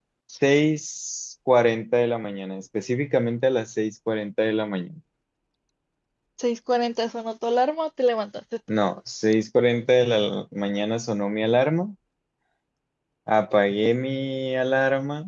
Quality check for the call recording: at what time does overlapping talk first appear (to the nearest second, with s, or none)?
none